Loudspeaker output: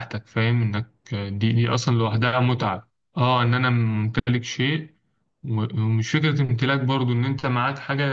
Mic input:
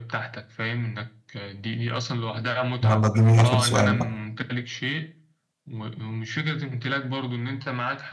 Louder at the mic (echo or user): user